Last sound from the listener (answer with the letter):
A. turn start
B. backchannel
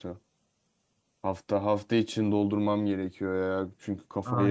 A